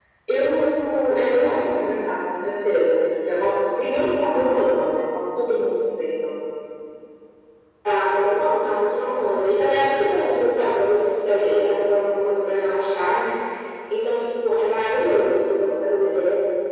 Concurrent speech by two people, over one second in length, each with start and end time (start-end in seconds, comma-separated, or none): none